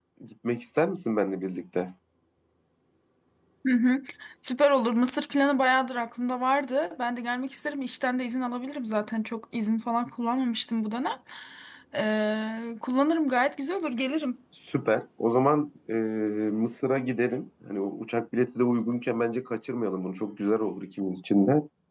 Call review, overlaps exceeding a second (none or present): none